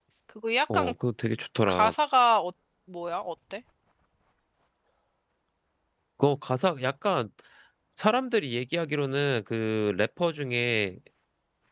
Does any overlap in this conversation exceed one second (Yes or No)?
No